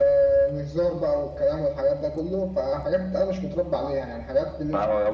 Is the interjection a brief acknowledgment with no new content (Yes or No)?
No